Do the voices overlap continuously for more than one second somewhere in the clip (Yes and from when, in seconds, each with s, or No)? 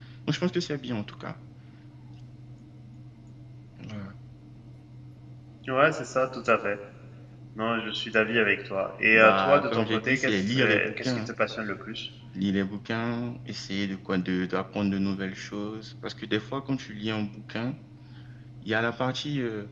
Yes, from 9.1 s